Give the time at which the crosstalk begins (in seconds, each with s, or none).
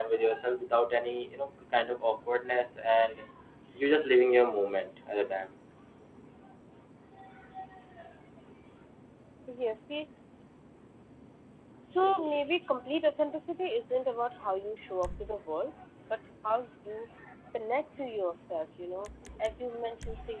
none